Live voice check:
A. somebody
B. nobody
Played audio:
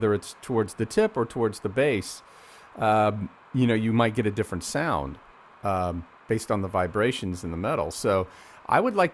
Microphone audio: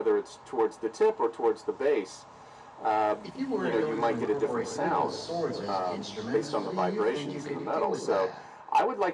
A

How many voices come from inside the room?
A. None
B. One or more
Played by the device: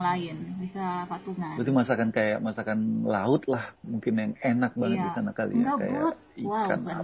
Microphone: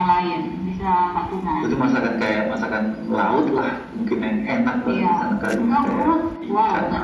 A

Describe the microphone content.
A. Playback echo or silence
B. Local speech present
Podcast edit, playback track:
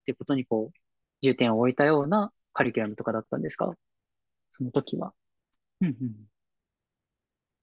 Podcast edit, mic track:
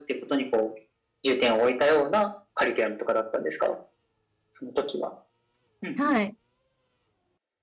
B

